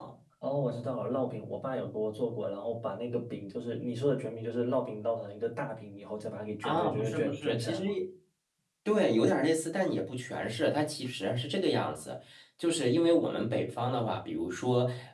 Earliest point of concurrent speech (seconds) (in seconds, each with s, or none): 6.6 s